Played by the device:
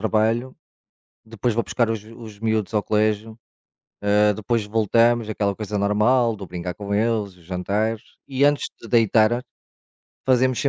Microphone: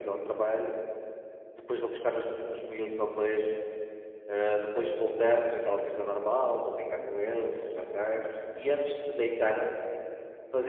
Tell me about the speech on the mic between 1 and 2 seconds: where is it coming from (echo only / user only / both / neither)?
echo only